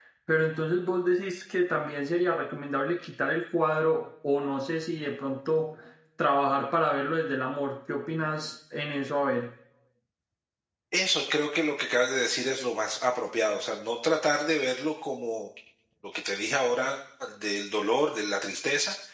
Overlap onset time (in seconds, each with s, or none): none